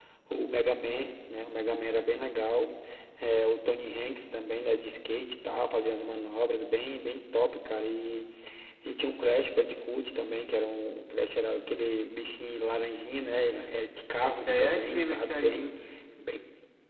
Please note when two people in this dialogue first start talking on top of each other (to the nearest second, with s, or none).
14 s